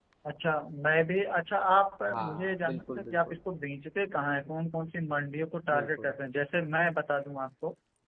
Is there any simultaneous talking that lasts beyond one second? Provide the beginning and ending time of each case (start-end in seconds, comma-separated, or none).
2.1-3.4